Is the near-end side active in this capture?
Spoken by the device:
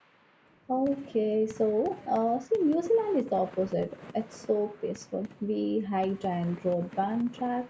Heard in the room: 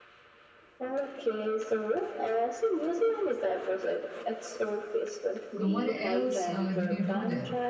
Yes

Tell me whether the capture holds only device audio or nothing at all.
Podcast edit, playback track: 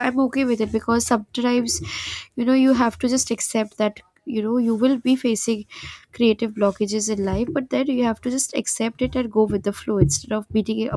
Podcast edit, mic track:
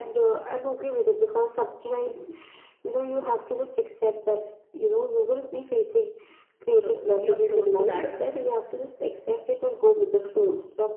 No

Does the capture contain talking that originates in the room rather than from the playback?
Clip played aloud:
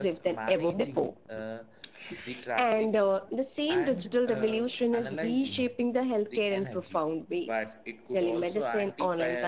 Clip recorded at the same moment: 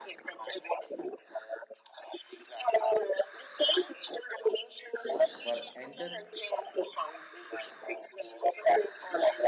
Yes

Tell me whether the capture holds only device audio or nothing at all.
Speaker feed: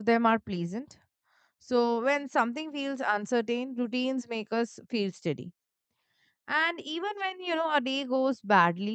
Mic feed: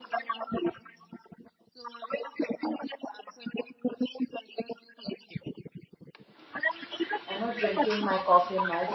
No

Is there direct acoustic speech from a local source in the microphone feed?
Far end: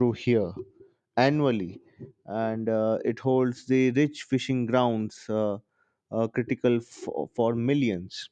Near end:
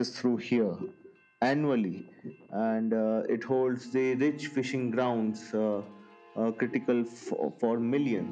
No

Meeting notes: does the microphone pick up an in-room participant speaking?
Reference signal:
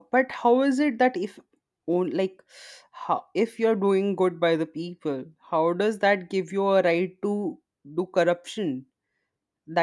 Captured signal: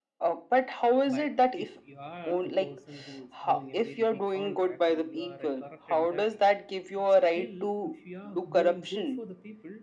Yes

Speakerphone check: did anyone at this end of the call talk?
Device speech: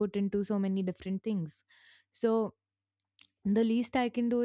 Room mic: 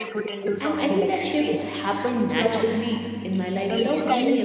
Yes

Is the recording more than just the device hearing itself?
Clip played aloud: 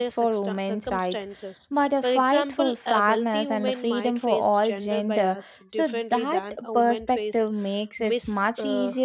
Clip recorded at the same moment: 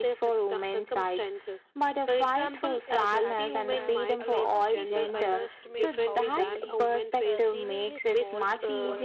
Yes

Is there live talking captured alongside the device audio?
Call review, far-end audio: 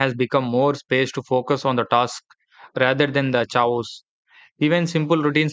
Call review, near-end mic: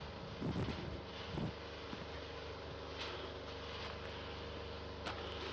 No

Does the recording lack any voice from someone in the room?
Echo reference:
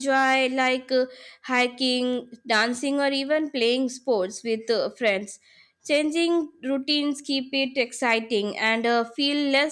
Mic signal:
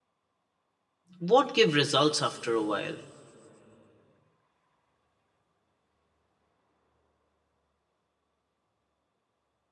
No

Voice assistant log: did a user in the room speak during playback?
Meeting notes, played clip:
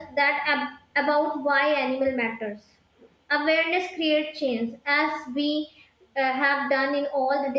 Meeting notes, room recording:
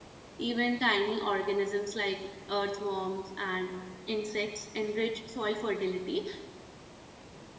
Yes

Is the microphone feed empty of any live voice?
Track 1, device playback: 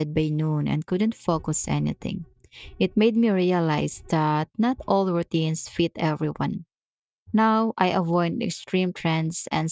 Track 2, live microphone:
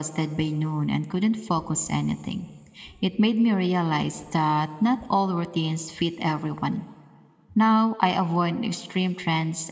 Yes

